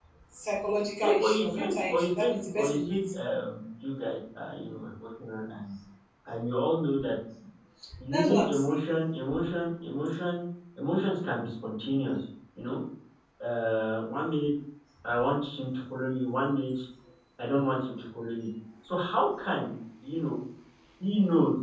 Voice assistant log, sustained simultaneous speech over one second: present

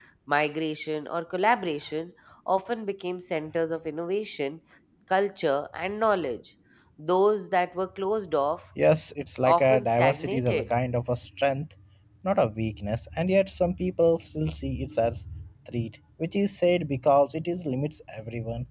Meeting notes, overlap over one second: present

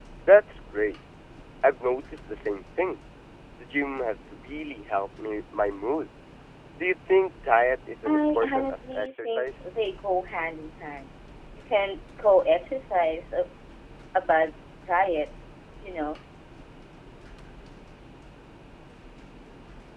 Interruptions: present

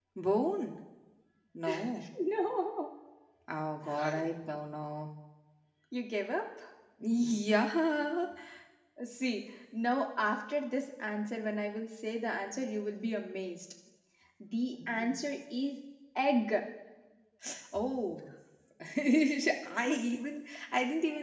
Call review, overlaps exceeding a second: none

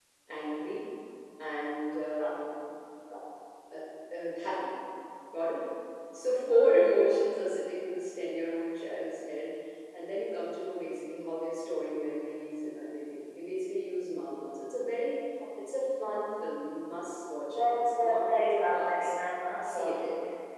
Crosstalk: present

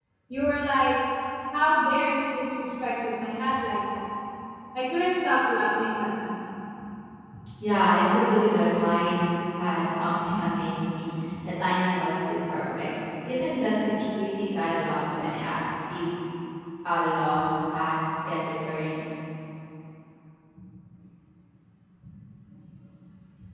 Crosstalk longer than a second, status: none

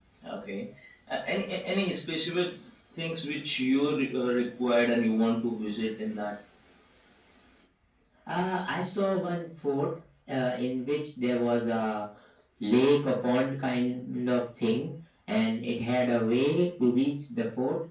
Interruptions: none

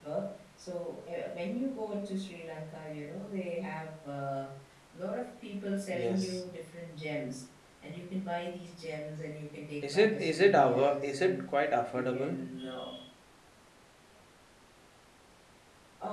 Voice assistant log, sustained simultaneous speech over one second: present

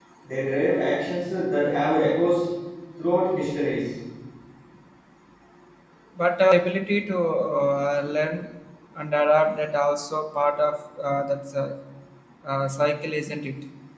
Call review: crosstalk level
none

